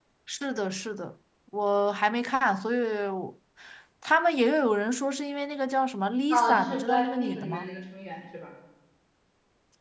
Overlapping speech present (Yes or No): Yes